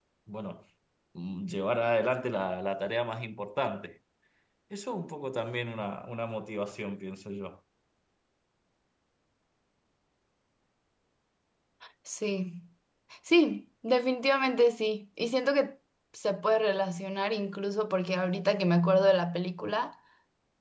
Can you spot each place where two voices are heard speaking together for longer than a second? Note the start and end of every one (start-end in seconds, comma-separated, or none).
none